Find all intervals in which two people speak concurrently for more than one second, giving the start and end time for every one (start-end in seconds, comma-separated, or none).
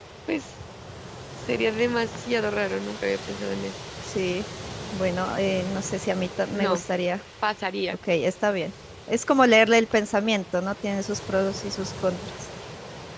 none